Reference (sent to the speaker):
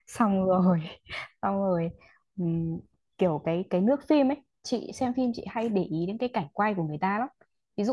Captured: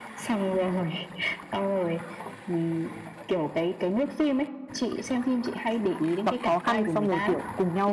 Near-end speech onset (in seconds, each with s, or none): 6.2 s